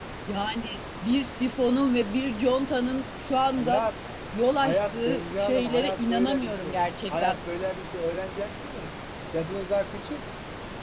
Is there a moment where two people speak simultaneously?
Yes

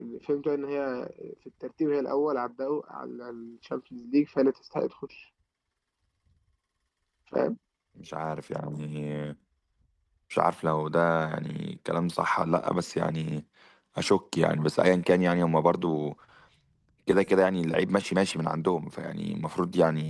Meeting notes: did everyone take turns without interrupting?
Yes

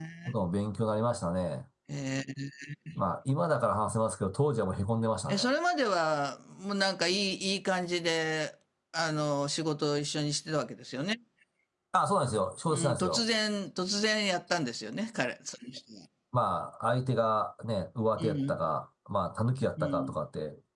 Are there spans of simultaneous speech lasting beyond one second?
No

